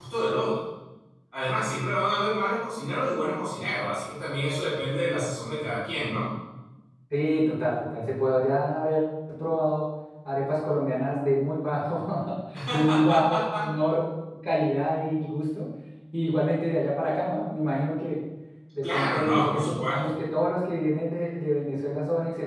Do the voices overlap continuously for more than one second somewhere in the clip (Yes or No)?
Yes